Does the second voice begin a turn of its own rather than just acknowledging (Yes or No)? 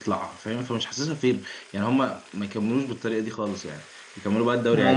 Yes